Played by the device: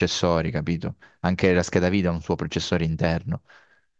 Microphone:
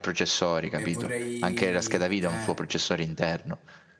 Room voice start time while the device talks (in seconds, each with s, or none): 0.7 s